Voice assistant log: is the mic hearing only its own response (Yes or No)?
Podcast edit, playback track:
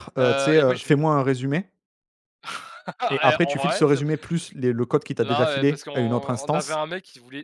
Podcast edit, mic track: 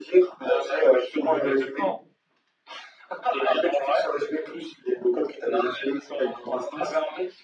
No